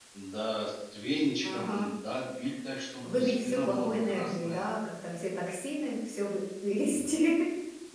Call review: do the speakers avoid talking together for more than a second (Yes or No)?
No